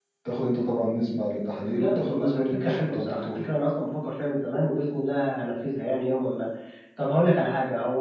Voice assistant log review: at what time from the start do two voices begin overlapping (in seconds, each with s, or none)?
1.6 s